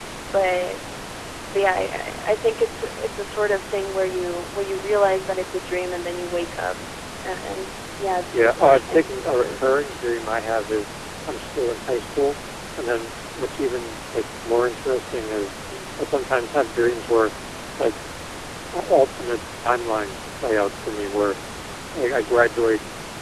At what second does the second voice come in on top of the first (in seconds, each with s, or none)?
8.3 s